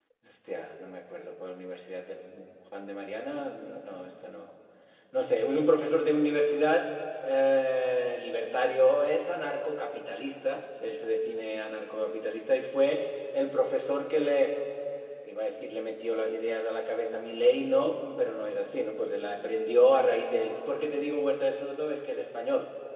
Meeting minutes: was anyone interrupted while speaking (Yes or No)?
No